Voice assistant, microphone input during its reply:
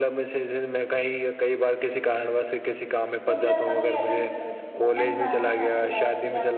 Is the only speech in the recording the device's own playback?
No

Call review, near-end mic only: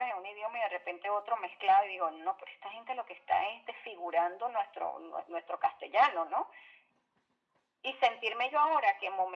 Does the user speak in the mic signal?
No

